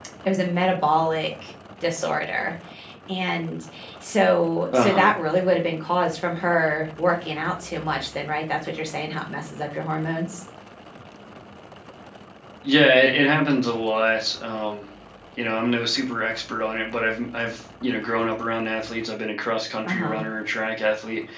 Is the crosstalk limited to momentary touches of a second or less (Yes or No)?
Yes